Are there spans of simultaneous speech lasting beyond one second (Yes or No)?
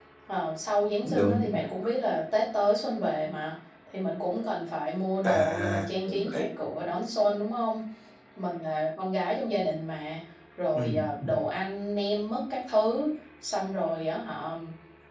Yes